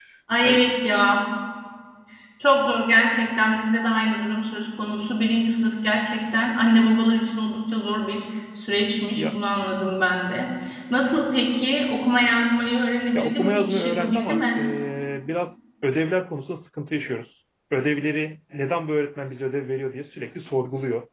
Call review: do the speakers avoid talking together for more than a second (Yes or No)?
No